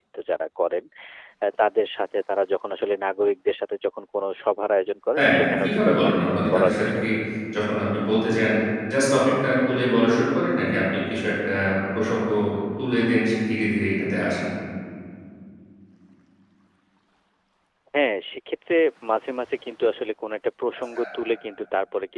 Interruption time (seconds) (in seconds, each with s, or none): 5.2 s